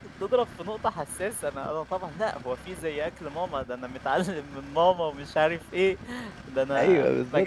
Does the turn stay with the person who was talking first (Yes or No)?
No